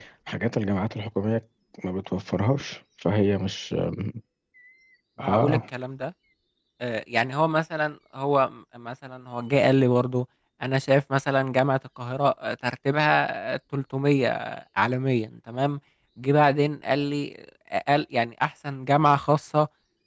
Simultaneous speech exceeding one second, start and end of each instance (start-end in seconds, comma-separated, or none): none